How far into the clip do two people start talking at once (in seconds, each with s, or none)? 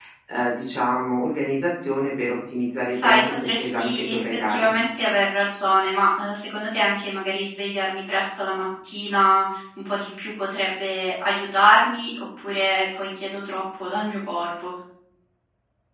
2.9 s